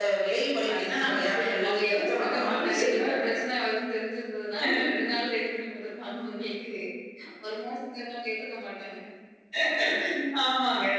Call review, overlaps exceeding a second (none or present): present